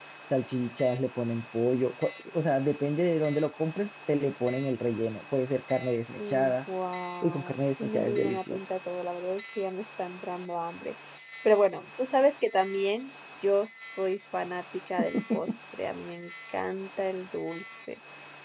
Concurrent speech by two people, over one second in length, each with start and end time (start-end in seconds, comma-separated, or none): 7.2-8.6